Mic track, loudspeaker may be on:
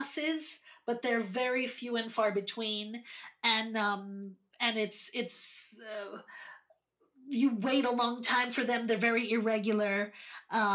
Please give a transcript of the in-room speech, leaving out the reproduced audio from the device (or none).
none